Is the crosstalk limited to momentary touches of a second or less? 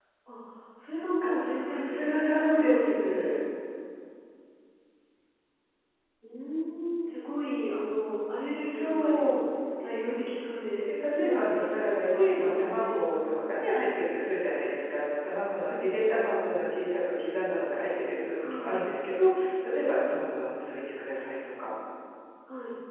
No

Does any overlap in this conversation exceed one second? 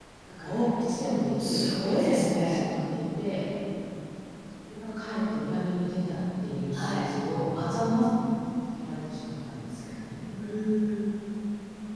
Yes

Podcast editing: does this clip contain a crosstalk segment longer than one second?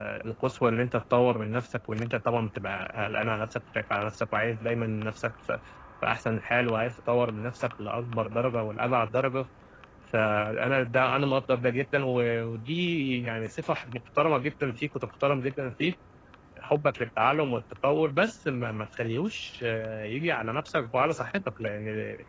No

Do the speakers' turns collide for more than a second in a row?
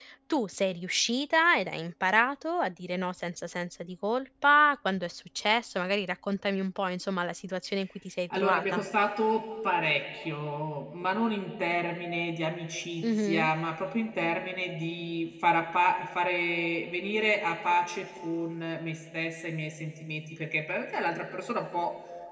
No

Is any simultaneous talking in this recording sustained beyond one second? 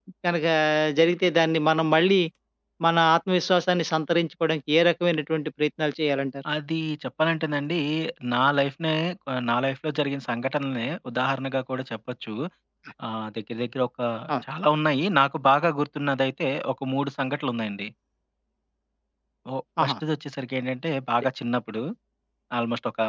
No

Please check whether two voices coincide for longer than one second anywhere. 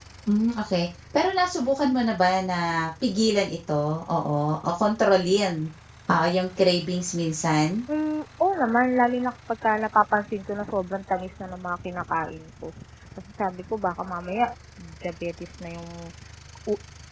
No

